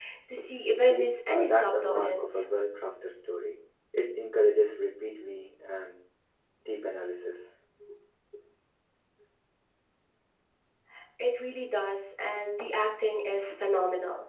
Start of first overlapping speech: 0.8 s

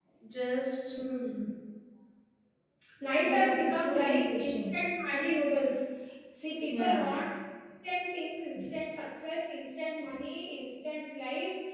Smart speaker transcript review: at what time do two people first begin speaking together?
3.2 s

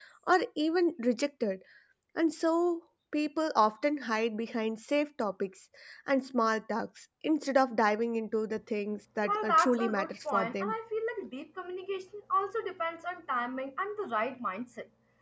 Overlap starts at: 9.2 s

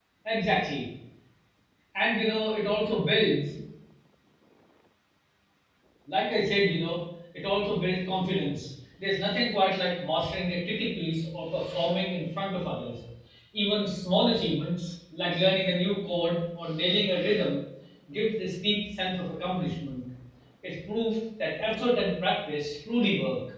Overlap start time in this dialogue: none

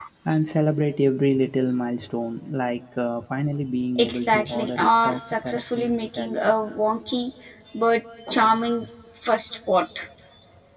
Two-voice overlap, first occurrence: 4.0 s

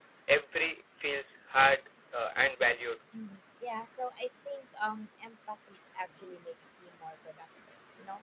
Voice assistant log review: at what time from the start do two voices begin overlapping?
none

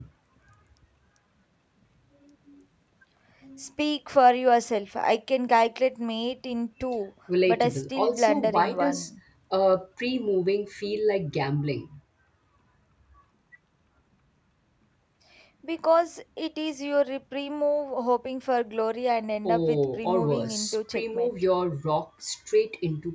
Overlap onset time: 7.5 s

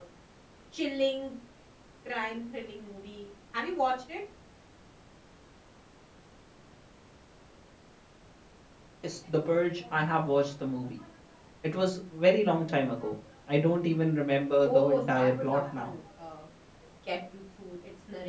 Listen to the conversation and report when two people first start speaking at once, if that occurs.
14.7 s

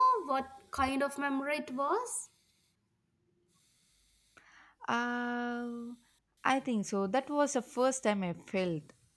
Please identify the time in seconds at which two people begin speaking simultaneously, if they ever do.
none

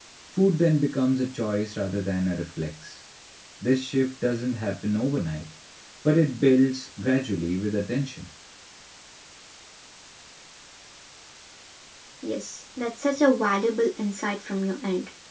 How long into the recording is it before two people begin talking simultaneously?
none

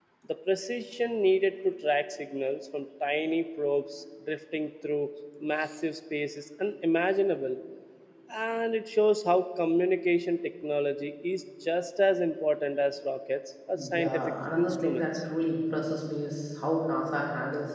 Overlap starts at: 13.8 s

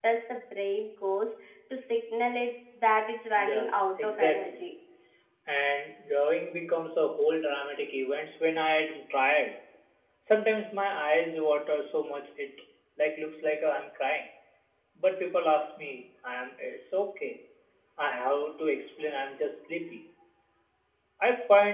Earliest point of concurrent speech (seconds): 3.3 s

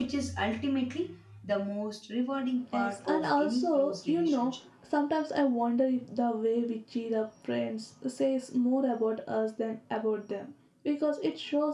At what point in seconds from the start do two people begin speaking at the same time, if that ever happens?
2.7 s

